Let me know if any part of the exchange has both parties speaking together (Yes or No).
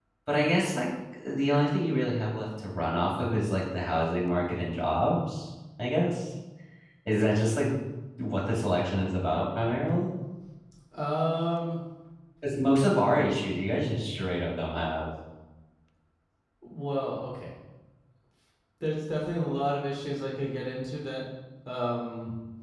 No